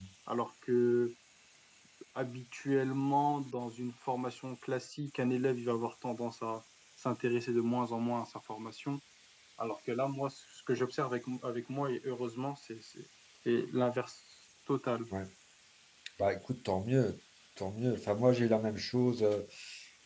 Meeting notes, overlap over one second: none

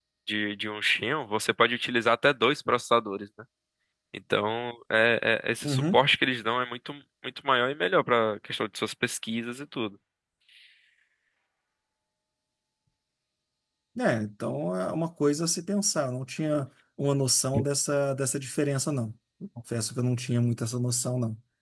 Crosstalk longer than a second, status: none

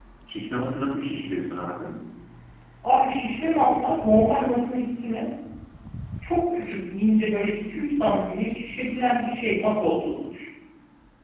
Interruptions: none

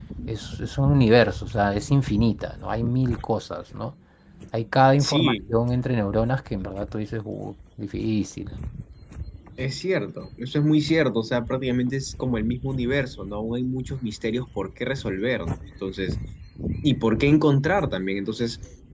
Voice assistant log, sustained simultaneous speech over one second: none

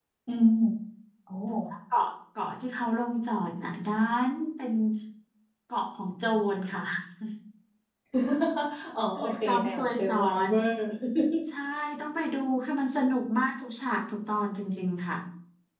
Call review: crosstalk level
present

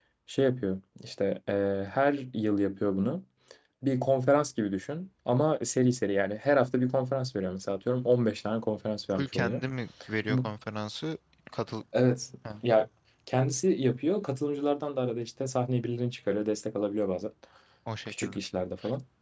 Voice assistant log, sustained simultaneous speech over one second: none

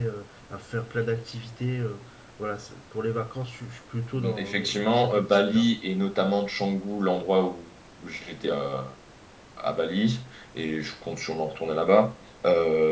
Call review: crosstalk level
present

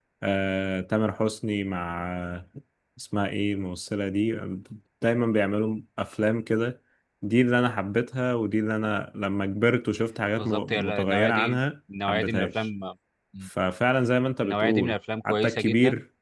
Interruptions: present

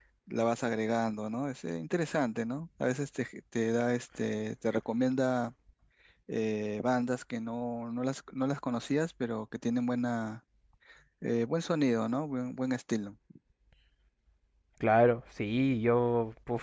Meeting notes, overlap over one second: none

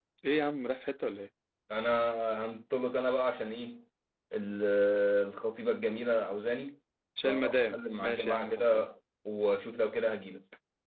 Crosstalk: present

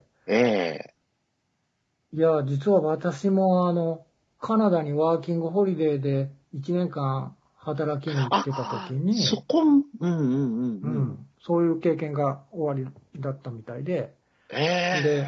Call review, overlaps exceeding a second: present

